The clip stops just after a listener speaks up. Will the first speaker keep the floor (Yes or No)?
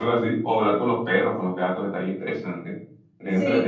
Yes